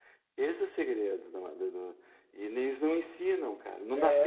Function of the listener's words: taking over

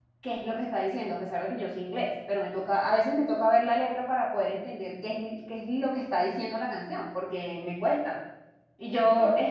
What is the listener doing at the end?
listening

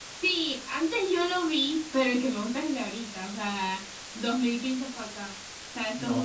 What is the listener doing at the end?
taking over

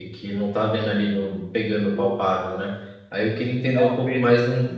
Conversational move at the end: listening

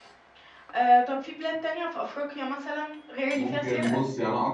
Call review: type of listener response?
taking over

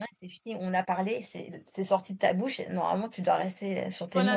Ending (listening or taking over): taking over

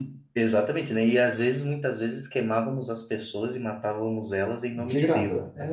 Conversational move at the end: taking over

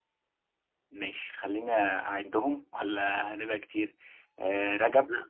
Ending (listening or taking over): listening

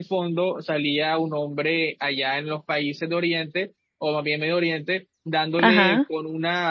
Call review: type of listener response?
listening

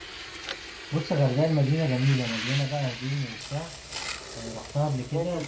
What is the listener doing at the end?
taking over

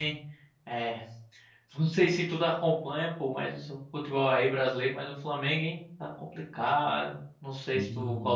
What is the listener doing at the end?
listening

